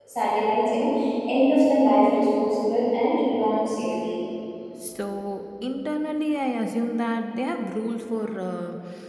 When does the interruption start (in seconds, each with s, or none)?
none